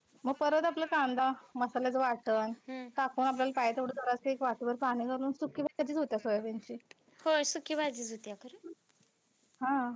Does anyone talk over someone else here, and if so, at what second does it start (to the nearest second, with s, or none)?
none